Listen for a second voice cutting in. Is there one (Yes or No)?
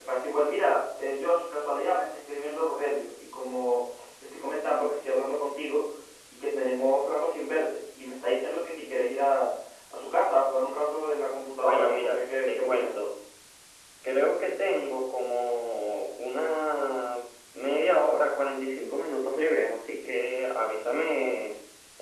Yes